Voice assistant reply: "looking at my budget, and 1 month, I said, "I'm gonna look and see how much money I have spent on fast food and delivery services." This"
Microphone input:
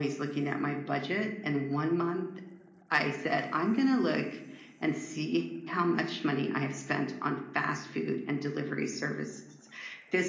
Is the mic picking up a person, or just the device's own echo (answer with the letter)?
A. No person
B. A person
A